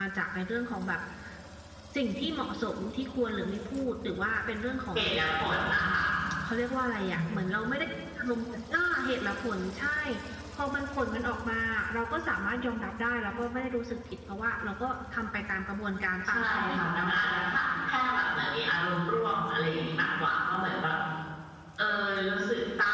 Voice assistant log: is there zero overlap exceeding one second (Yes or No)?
No